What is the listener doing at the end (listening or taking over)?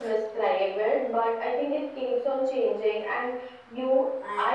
listening